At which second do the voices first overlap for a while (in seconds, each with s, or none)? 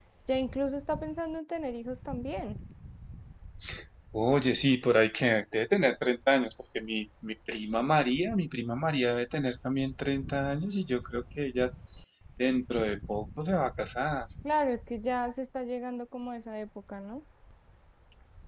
none